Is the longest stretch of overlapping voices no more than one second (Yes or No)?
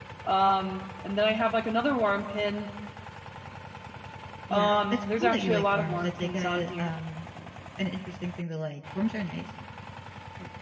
No